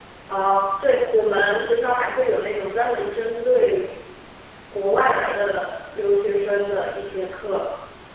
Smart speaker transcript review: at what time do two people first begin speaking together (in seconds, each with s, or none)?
none